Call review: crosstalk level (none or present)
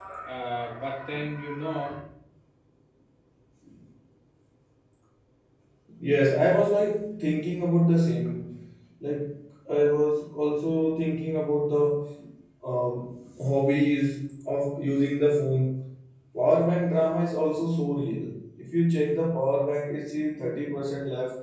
none